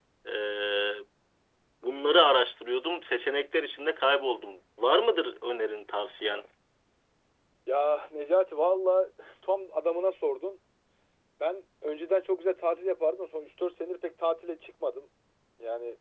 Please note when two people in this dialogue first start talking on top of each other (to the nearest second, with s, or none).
none